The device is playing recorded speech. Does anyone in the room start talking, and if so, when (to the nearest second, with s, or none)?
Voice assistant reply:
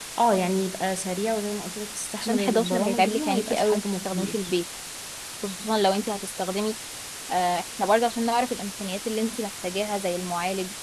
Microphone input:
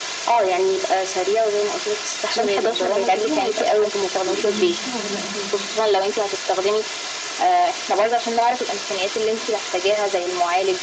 4 s